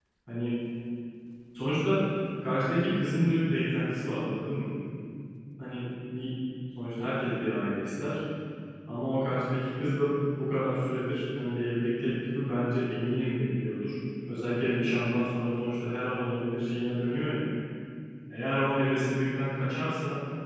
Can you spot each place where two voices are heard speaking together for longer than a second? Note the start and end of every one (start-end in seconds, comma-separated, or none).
none